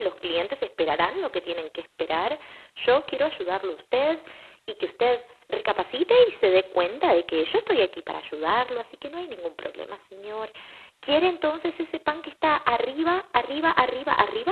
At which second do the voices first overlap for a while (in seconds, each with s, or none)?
none